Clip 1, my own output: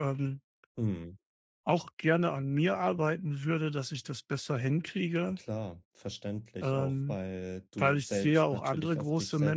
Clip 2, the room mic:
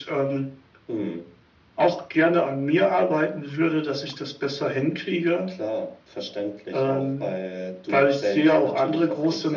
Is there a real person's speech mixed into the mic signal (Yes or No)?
No